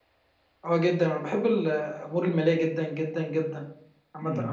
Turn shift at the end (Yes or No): No